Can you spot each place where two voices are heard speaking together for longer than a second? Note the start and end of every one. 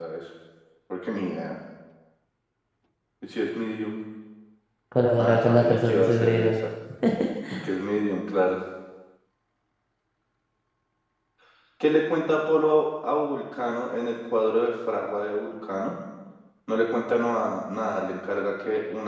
5.2-6.5

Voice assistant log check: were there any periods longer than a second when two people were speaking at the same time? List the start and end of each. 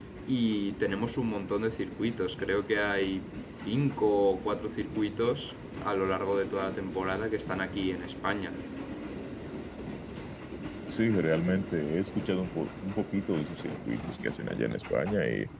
none

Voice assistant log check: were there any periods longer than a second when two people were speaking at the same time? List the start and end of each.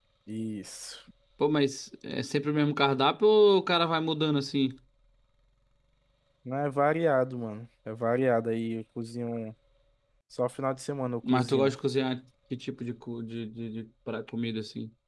none

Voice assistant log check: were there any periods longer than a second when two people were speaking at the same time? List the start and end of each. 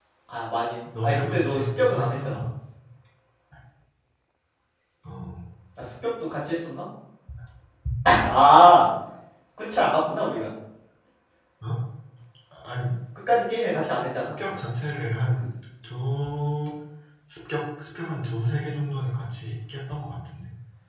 1.0-2.4

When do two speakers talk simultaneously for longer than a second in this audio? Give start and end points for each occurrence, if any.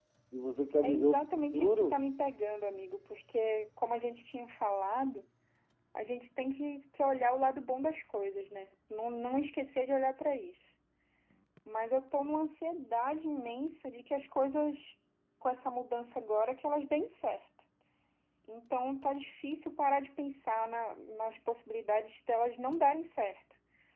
0.8-2.1

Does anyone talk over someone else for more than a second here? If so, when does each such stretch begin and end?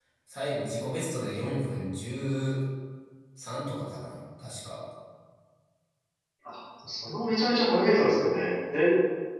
none

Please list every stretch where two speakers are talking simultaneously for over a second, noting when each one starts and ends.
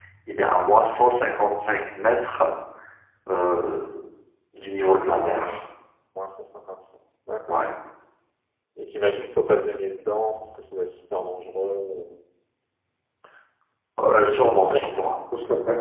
none

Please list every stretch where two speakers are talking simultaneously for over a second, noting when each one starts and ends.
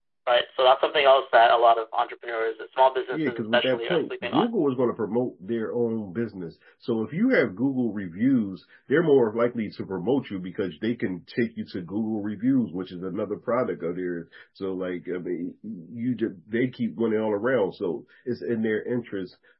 3.1-4.5

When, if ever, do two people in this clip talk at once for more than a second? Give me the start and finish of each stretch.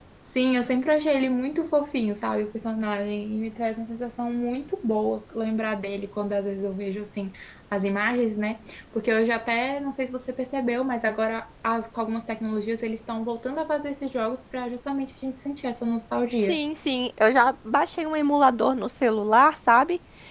none

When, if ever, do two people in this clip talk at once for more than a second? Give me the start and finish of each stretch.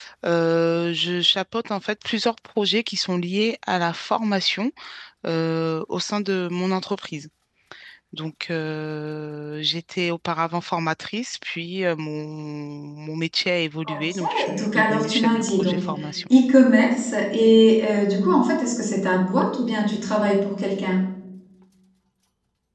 13.8-15.8

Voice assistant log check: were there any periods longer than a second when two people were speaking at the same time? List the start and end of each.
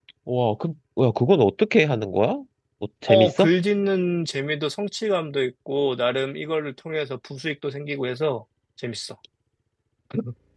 none

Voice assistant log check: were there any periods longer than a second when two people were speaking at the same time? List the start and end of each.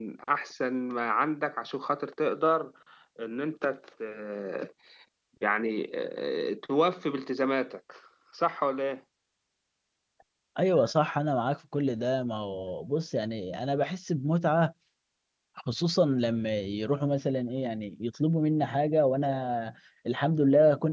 none

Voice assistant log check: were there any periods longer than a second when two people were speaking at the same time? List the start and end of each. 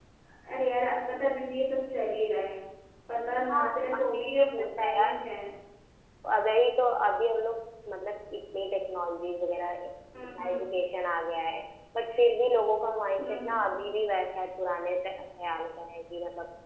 3.5-5.1

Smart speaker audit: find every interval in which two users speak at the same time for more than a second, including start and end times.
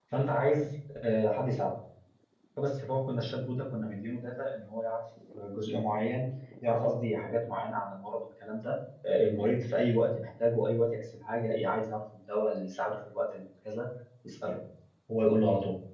none

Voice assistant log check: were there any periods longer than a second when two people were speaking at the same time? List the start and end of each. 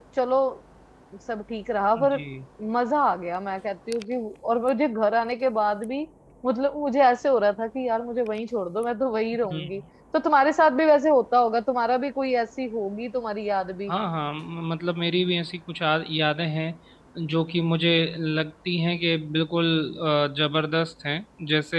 none

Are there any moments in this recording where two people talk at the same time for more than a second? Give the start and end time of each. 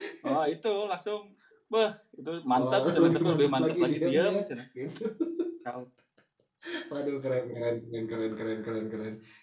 2.6-4.4

